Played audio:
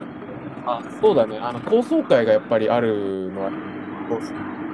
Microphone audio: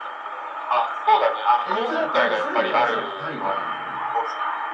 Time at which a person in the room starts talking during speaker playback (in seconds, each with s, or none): 1.6 s